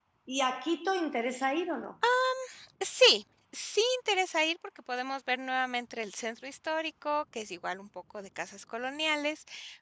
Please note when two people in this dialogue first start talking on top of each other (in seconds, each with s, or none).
none